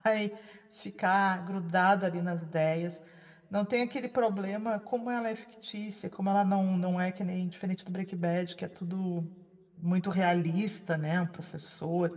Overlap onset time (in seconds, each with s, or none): none